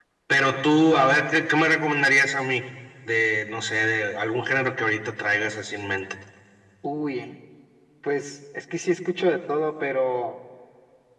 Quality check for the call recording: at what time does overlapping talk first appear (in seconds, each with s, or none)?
none